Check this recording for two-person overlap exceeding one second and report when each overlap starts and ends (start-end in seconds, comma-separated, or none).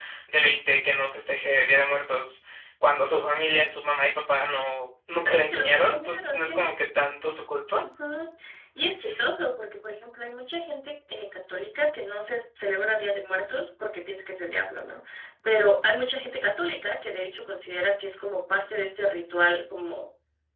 5.4-6.6